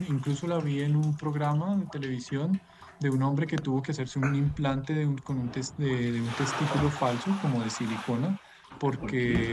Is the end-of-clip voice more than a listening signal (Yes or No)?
No